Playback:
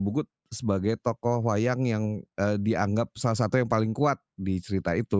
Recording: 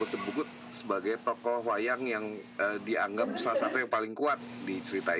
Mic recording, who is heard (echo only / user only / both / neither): both